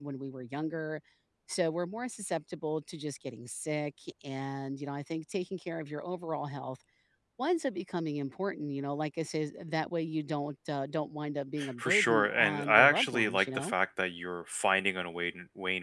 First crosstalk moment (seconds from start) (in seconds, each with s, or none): 11.6 s